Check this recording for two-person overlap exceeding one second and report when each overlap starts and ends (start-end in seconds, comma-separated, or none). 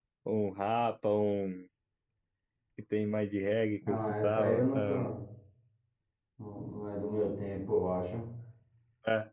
3.9-5.1